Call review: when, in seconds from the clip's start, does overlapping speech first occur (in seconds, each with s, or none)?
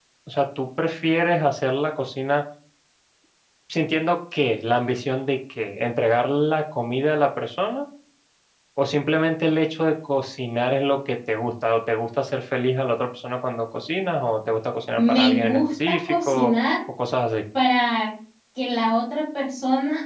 15.0 s